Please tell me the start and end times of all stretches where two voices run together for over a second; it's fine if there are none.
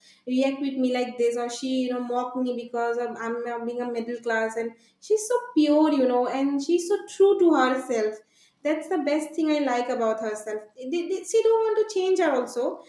none

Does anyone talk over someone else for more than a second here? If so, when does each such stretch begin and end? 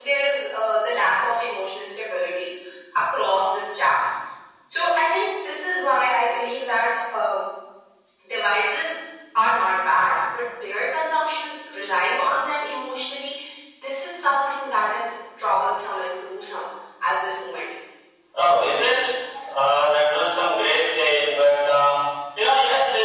none

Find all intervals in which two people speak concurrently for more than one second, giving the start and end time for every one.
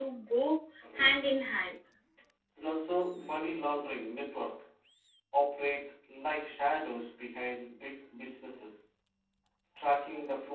none

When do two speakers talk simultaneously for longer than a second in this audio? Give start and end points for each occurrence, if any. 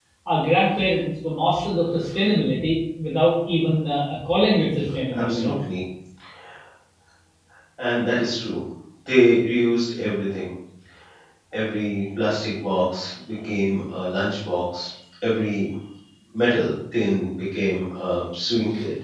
none

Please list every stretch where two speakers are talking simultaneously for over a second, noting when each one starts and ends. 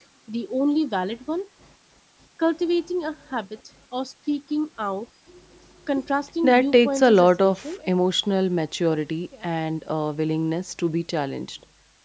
6.4-7.8

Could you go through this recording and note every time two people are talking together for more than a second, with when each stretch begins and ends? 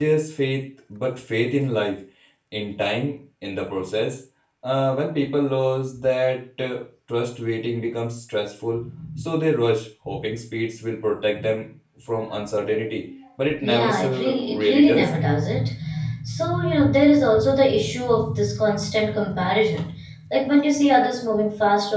13.6-15.1

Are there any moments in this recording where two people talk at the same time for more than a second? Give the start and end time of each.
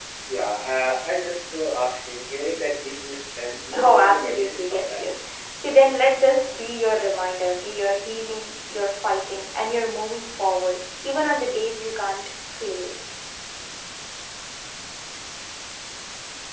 3.7-5.1

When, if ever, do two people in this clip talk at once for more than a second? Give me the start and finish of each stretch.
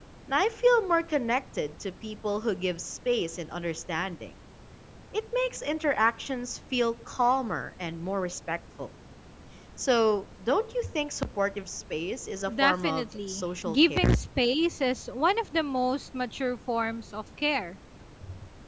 12.6-14.1

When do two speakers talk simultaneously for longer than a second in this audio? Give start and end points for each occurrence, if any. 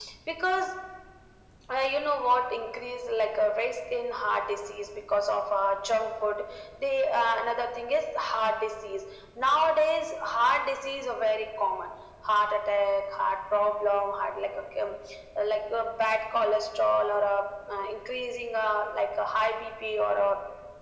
none

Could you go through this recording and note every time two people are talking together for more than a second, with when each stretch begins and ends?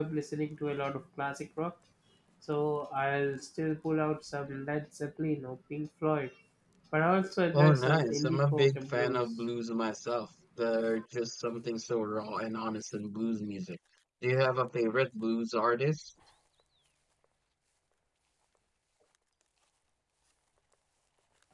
7.5-9.2

